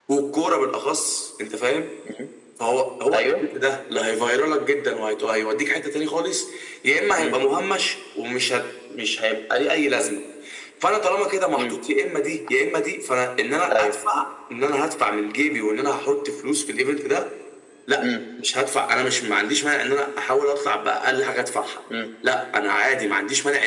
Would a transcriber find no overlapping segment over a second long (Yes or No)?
Yes